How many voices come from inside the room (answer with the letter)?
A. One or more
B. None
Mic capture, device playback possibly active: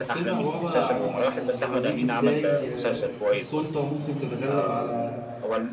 A